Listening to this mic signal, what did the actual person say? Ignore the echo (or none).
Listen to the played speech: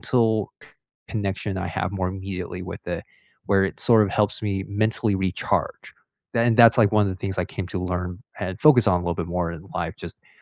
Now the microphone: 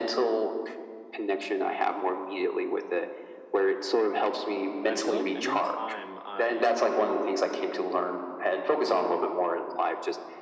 I feel like anytime I